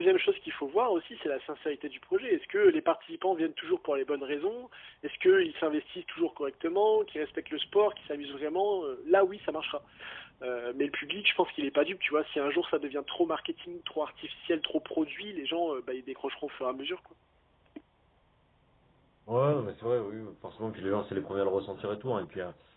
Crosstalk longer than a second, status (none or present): none